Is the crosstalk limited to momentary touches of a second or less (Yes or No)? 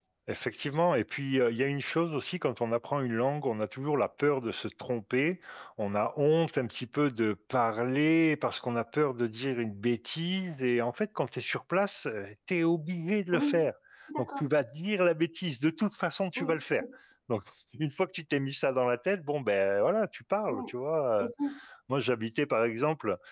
Yes